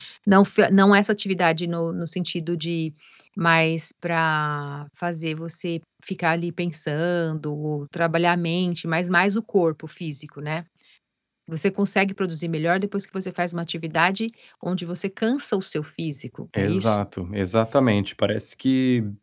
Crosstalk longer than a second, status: none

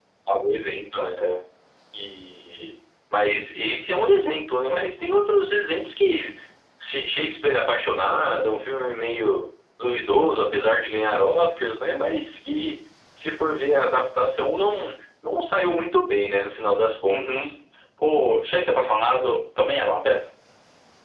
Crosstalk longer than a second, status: none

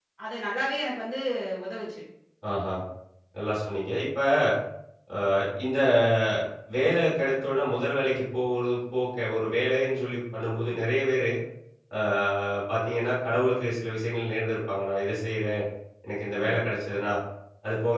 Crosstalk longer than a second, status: none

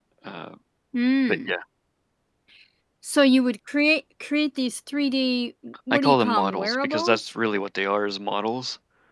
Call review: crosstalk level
present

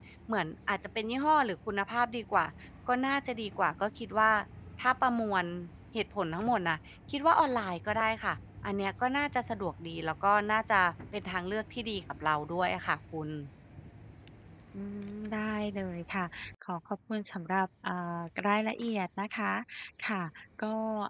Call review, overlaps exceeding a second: none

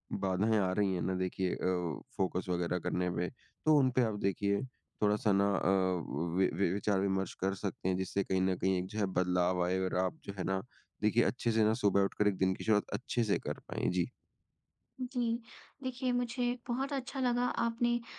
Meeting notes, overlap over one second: none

